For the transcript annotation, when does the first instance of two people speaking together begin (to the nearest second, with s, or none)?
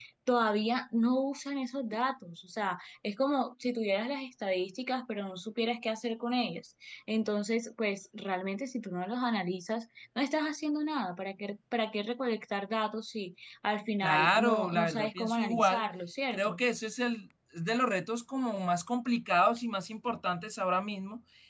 14 s